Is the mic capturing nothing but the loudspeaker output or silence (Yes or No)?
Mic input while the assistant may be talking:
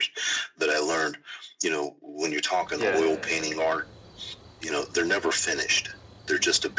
No